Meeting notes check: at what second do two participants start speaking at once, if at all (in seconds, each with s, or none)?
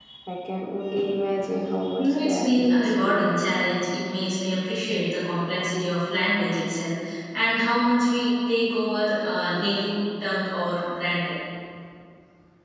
2.0 s